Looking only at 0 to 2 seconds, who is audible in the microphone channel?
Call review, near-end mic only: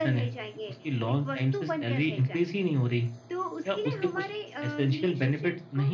echo only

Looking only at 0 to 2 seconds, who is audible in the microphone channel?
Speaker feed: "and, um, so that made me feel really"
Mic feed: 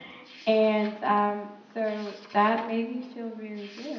echo only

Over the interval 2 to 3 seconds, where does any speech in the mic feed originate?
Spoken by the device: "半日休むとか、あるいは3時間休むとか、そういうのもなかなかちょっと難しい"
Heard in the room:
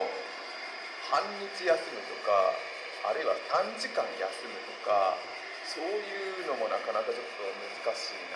echo only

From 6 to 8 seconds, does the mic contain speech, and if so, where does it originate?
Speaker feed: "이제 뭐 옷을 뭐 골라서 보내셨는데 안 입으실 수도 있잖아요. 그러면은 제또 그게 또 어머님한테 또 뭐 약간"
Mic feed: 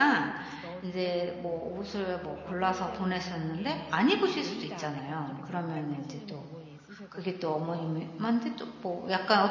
both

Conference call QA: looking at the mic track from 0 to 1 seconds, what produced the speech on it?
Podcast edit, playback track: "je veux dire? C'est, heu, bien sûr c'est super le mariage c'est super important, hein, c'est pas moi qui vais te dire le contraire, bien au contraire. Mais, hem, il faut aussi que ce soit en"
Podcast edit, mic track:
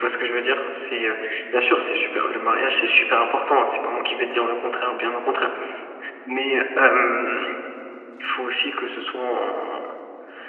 echo only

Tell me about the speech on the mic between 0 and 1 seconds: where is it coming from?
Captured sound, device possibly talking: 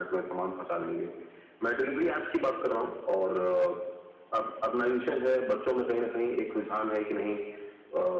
echo only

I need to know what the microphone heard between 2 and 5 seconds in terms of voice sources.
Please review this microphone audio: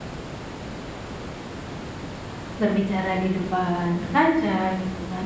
user only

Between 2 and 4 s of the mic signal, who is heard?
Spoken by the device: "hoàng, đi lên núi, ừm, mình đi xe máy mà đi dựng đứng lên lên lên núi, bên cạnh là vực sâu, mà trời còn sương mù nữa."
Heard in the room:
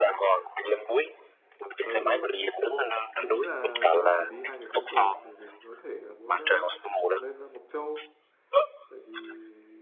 both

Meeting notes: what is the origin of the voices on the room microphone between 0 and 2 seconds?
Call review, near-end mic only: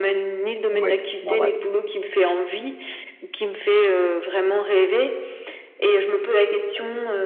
both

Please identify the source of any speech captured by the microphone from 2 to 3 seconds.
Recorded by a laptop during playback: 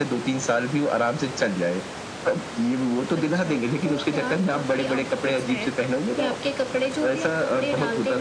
echo only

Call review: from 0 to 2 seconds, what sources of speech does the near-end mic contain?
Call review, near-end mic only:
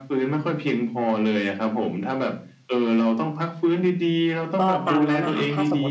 echo only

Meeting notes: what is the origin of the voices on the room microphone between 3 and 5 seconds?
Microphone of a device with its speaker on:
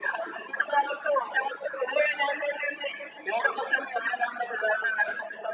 echo only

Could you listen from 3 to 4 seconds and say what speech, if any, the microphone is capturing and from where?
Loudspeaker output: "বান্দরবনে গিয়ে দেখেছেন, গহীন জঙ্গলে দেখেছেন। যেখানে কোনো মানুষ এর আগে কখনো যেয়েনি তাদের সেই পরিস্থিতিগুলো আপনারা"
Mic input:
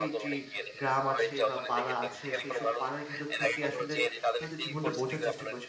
both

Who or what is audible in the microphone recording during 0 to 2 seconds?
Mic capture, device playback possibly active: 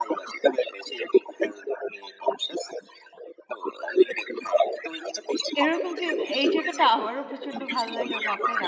echo only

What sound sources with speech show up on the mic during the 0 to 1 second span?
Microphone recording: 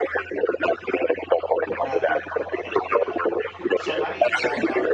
echo only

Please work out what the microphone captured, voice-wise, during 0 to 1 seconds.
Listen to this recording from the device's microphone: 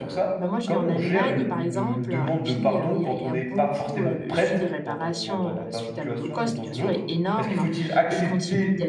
both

